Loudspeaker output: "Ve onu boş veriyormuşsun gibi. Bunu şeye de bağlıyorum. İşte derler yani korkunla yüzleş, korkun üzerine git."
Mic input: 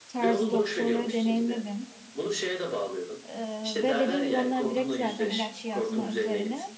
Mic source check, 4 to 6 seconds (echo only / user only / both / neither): both